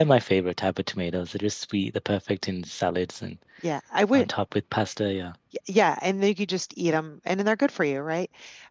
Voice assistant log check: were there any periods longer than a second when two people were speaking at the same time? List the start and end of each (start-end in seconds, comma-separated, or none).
none